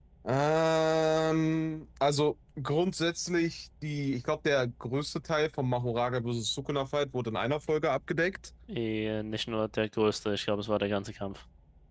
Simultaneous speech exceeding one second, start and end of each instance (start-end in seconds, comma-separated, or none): none